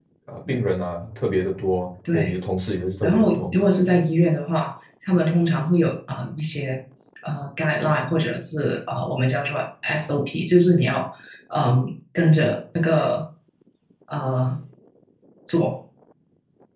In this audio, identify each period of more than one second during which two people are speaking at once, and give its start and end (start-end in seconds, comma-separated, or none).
none